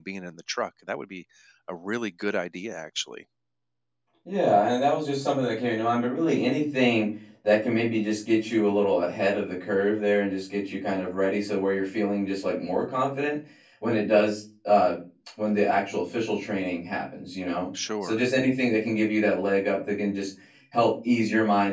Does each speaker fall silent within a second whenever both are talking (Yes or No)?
Yes